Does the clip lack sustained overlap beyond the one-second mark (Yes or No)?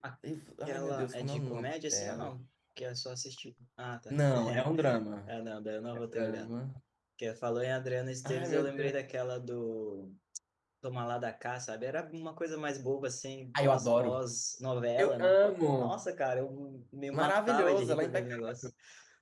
No